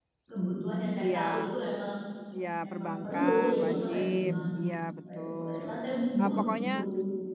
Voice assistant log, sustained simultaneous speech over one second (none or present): present